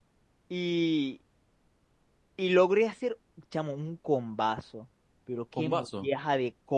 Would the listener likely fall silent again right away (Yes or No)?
Yes